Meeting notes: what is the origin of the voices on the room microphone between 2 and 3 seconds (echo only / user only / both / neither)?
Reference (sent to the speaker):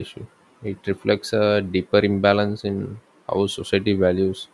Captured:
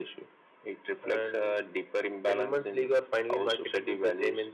both